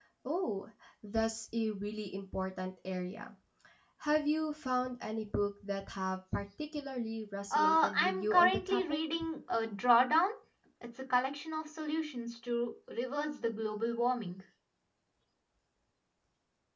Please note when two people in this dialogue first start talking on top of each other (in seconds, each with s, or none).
7.5 s